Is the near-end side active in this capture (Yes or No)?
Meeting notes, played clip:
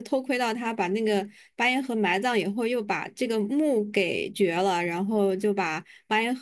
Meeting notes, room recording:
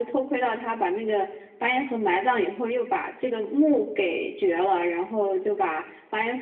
No